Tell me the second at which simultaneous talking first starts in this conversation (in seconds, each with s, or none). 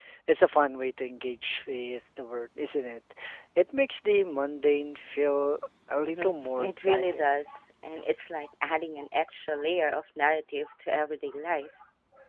6.0 s